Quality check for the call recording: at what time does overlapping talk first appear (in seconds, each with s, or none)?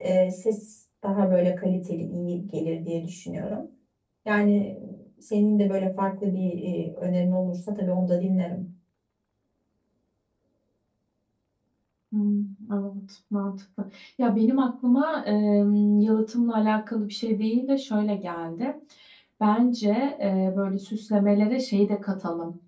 none